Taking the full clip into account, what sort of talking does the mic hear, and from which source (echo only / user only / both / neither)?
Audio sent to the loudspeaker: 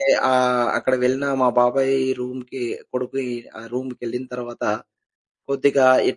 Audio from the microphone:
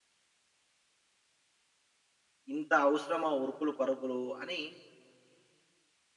user only